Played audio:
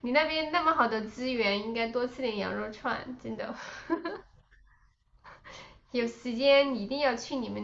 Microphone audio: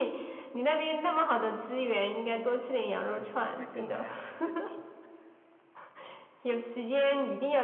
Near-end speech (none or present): present